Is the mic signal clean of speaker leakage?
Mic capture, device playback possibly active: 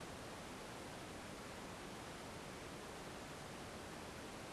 Yes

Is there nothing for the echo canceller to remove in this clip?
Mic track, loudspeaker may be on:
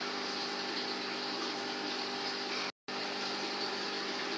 Yes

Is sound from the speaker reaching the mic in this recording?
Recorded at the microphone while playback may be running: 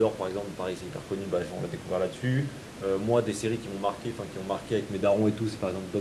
No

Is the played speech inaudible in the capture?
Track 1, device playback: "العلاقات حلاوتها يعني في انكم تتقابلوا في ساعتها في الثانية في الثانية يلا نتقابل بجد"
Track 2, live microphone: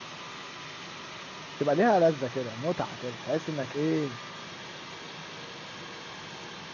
Yes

